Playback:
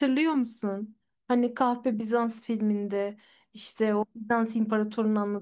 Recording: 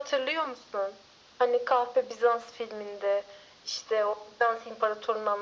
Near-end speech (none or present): none